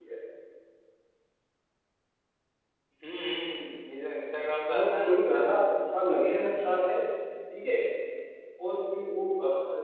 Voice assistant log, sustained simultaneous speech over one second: none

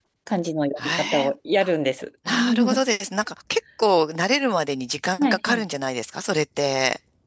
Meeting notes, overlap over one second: none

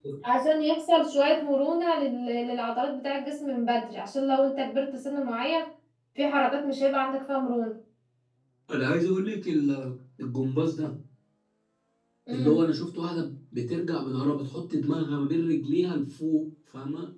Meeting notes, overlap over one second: none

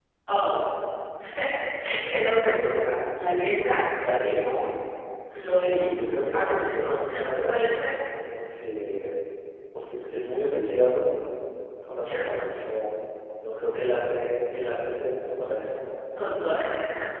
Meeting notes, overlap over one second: present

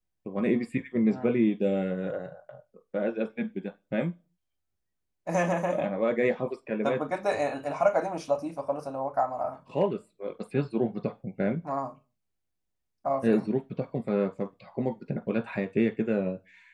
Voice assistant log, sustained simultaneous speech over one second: none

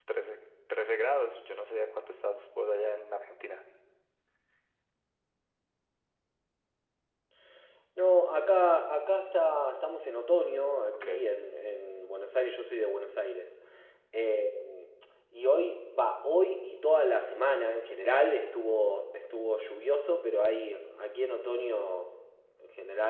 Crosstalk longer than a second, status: none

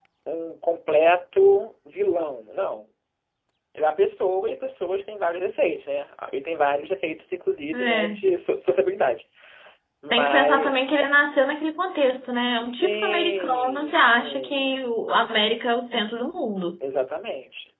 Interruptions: present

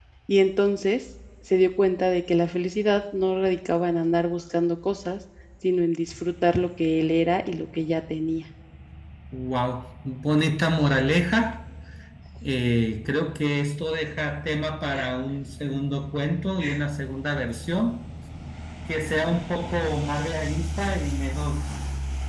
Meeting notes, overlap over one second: none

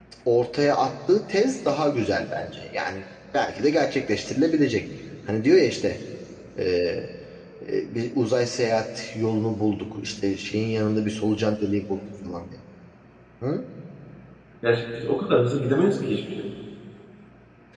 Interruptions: none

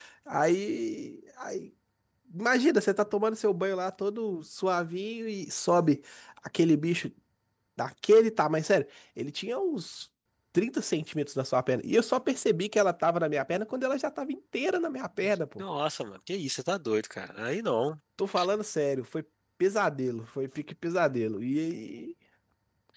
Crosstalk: none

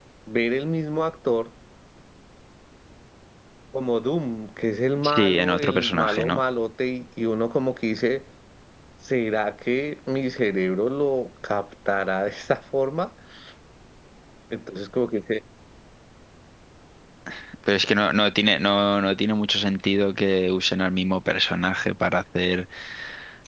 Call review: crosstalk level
present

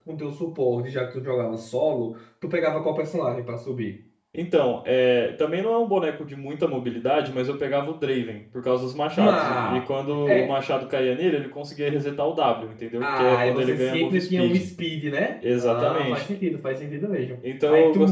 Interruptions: present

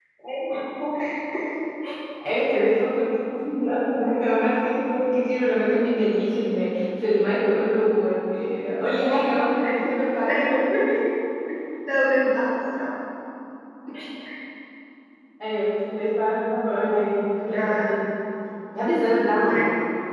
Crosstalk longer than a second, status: none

